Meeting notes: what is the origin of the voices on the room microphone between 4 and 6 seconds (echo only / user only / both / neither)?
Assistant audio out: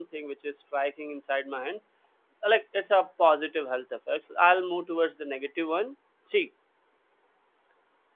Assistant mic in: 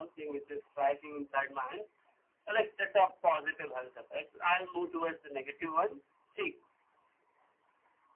echo only